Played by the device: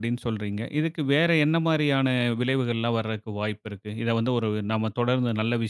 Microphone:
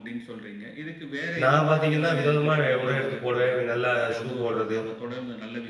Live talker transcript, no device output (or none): நான் பாத்தீங்கன்னா வித விதமா அ உடை எடுத்து போடுவேன். நல்லா ஷூ போடுறது,